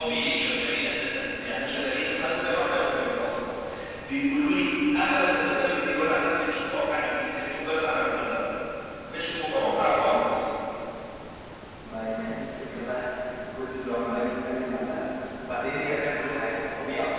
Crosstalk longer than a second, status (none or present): none